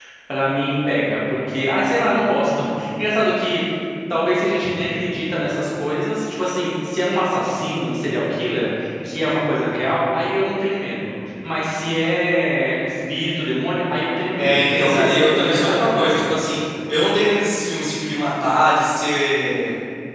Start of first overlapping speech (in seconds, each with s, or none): 14.4 s